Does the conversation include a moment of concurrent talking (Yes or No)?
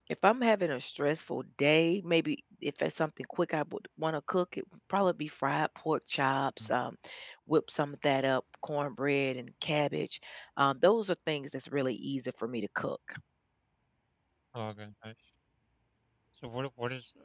No